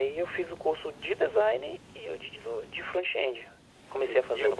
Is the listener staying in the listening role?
No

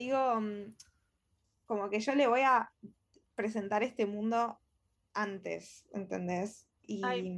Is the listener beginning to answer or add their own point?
Yes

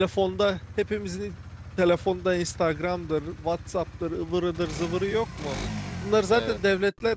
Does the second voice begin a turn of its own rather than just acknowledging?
No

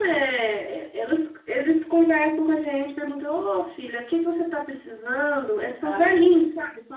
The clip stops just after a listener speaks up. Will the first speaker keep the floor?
Yes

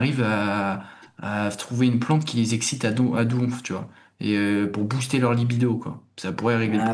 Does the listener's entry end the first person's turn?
Yes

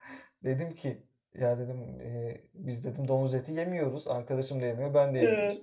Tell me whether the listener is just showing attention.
Yes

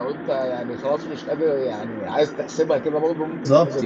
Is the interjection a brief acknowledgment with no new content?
No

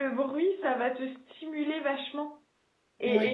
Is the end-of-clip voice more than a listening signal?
No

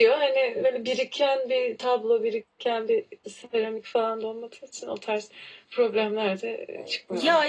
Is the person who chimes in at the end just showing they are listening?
No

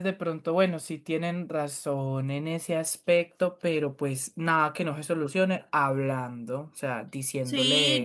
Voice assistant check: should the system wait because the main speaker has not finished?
No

